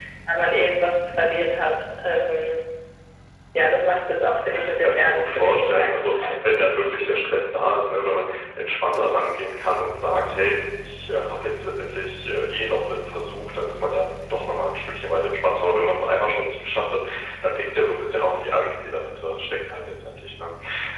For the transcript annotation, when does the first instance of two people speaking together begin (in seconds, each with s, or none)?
4.4 s